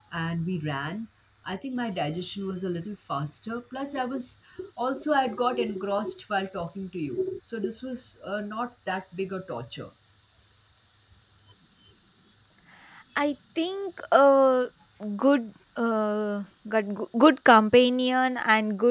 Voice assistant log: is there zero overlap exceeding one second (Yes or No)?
Yes